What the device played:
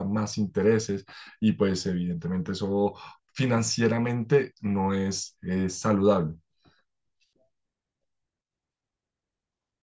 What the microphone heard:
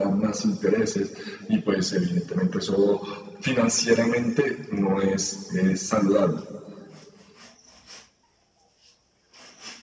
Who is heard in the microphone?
echo only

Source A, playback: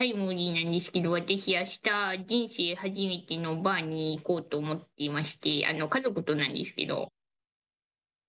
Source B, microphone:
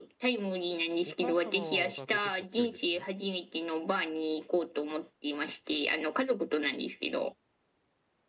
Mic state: both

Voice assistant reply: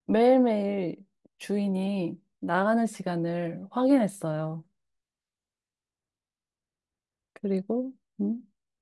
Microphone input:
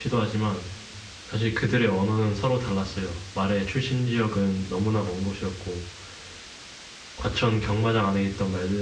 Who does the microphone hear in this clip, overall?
user only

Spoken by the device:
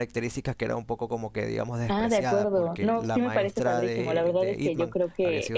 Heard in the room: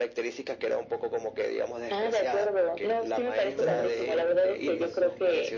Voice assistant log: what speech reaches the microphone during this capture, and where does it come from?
both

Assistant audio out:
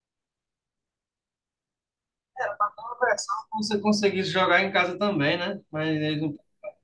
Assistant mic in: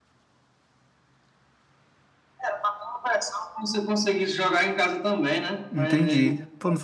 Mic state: both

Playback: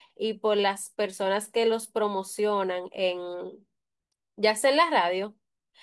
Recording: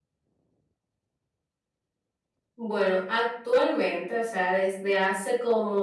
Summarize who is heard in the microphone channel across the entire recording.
user only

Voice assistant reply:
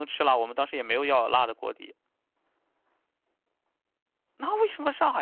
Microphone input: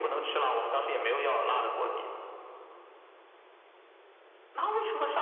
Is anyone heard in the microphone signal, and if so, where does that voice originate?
echo only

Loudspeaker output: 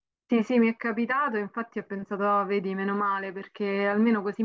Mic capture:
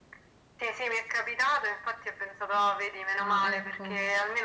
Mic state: both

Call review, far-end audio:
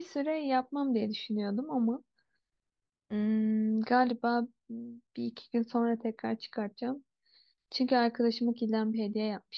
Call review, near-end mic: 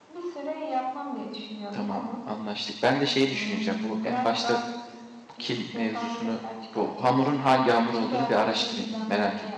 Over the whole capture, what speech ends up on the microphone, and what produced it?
both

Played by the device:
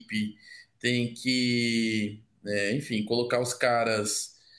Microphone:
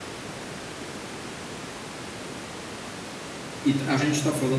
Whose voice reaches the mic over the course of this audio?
user only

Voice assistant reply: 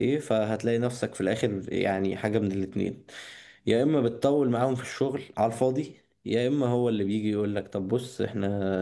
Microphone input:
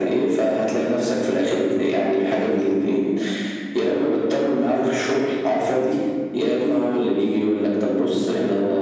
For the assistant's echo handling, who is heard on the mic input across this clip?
echo only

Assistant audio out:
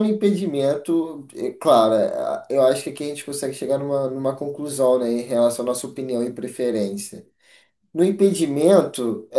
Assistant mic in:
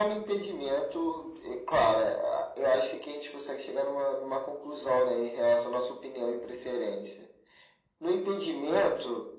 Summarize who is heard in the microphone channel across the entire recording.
echo only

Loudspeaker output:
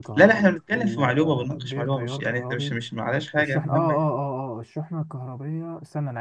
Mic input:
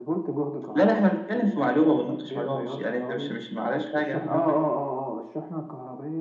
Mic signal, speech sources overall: echo only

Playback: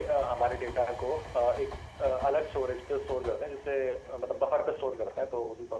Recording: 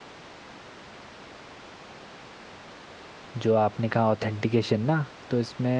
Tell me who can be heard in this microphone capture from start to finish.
user only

